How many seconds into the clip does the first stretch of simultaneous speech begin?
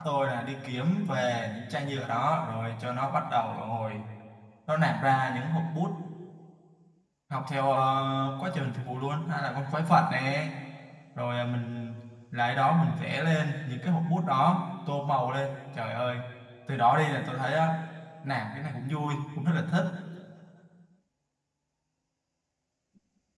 none

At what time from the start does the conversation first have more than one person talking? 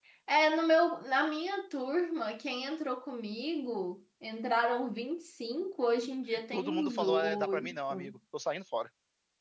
6.5 s

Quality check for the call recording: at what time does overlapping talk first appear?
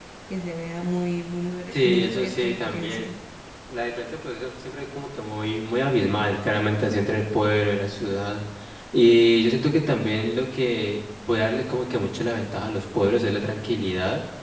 1.7 s

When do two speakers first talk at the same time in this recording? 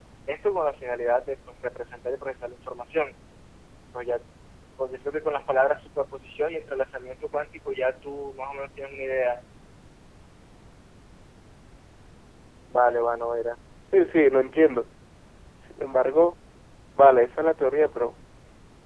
none

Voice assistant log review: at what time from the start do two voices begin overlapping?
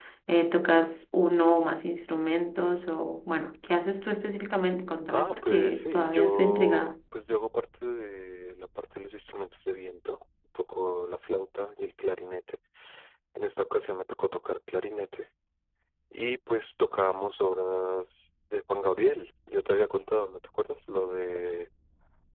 5.1 s

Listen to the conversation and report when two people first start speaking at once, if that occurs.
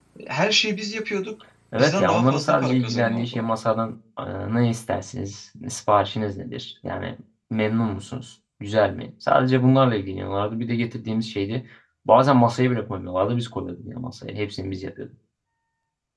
1.7 s

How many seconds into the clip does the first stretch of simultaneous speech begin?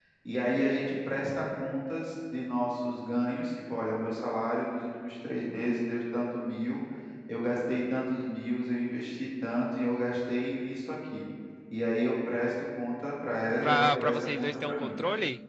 13.6 s

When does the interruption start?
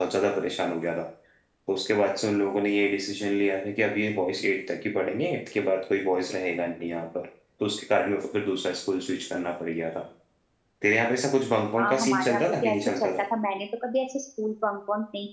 11.8 s

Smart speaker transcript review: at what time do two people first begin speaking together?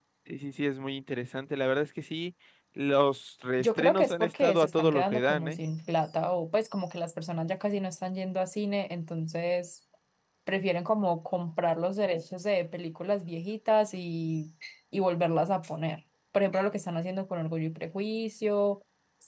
3.6 s

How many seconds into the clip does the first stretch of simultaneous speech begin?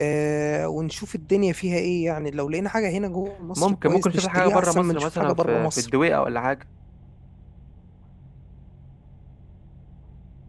3.6 s

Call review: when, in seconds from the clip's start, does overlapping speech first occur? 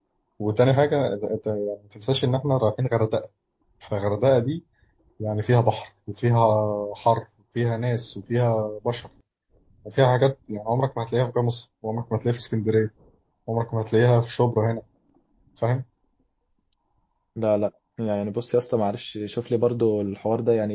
none

